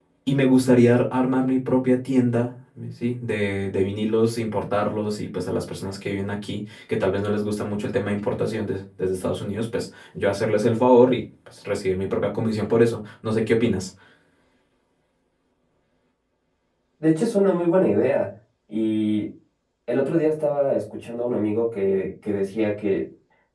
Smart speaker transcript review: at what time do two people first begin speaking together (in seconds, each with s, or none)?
none